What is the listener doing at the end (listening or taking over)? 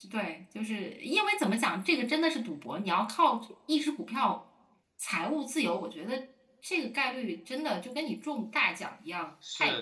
taking over